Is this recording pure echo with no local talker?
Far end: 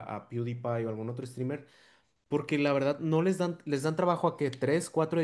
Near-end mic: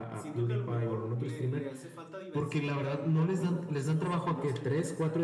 No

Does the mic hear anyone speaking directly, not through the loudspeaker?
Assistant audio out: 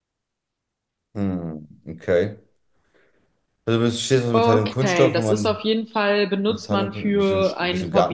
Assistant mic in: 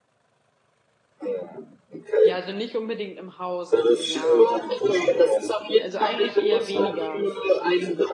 Yes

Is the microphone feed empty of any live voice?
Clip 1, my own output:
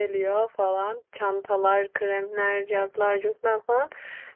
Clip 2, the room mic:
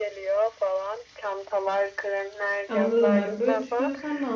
No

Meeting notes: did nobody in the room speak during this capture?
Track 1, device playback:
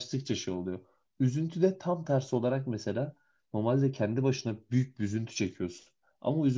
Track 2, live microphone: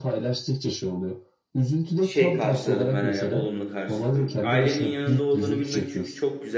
No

